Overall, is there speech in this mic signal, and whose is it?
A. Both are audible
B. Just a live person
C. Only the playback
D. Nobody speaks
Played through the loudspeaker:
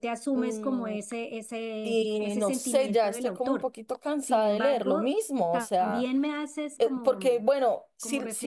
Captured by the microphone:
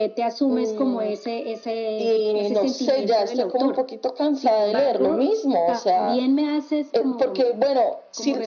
C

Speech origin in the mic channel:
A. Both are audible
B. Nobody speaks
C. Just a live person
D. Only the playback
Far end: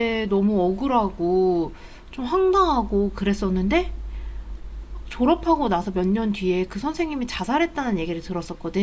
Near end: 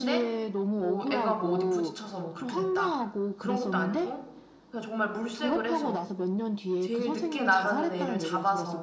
A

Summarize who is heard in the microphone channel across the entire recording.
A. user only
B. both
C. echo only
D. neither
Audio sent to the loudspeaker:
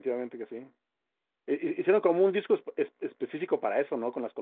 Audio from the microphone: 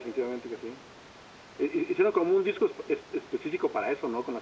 C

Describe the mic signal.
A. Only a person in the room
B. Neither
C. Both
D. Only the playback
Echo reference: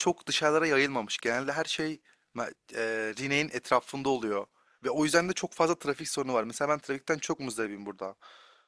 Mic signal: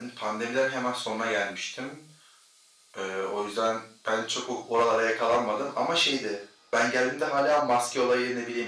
A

